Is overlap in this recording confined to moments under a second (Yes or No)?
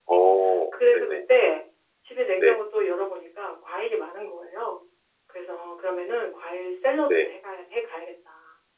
Yes